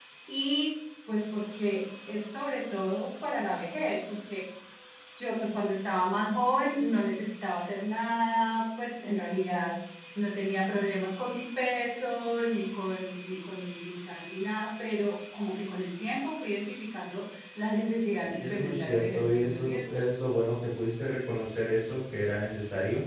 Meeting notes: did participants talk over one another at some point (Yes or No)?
Yes